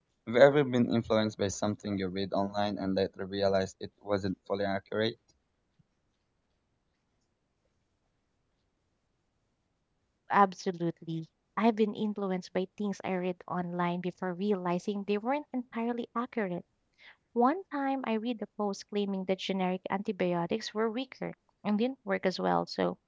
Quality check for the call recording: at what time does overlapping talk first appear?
none

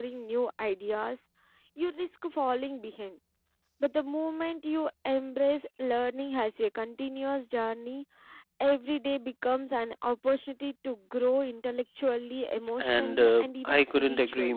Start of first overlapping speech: 13 s

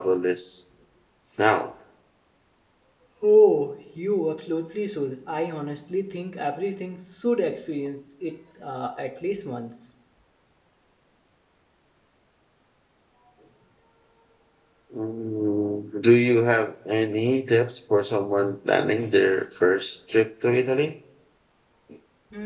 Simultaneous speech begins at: none

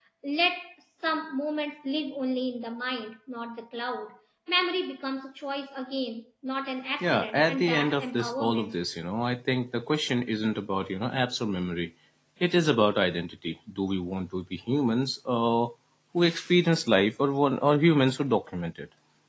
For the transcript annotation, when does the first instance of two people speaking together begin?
7 s

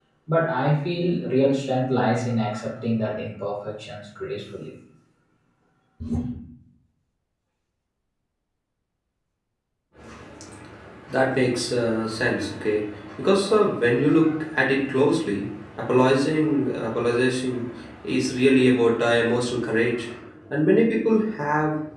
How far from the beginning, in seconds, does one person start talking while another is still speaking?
none

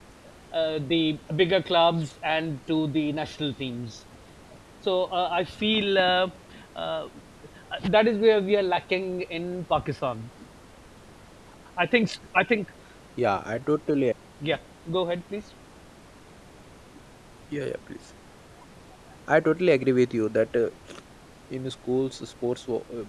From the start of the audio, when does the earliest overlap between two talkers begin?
none

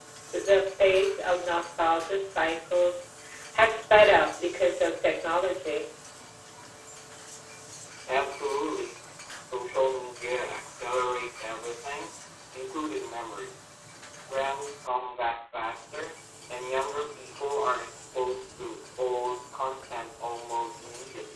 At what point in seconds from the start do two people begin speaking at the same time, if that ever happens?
none

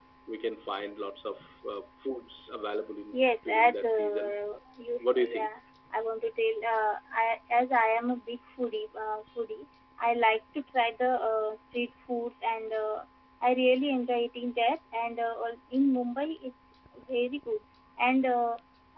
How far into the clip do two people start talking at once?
3 s

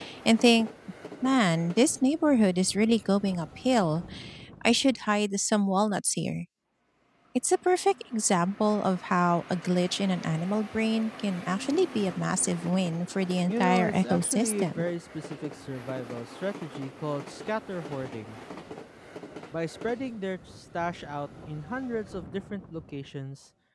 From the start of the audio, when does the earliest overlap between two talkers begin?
13 s

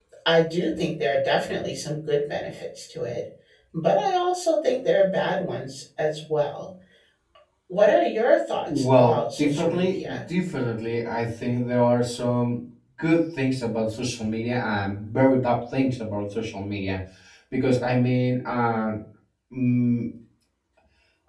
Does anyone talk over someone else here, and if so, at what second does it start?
9 s

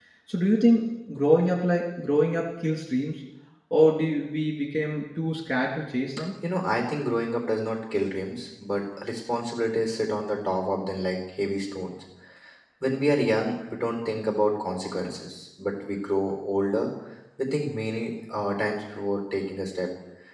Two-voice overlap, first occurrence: none

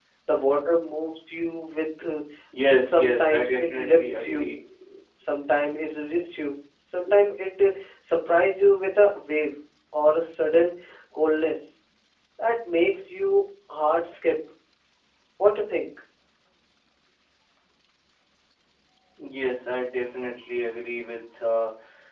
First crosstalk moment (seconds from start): 3 s

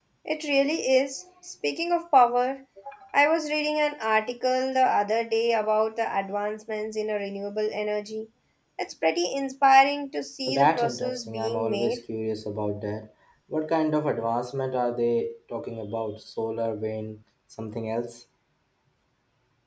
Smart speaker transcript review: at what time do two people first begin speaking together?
10 s

